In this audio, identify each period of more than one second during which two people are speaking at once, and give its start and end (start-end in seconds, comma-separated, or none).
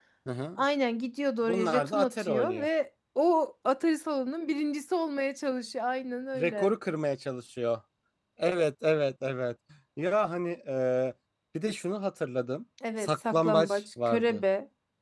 1.5-2.7, 13.0-14.4